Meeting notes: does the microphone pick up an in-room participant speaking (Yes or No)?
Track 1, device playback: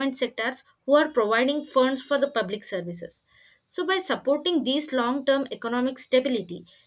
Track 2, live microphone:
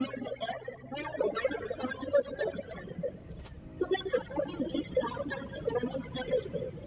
No